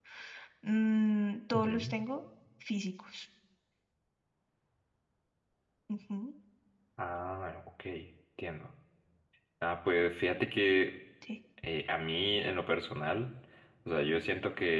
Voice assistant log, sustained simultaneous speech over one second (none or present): none